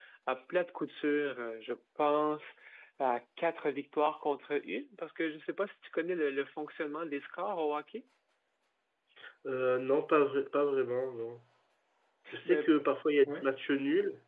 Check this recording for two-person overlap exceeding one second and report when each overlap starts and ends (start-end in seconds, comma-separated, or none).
none